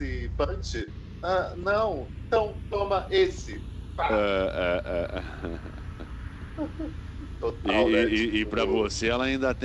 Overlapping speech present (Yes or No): Yes